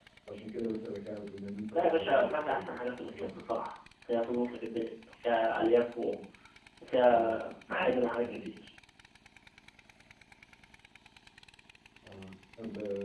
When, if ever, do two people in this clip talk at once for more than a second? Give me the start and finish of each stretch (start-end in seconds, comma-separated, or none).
1.7-3.5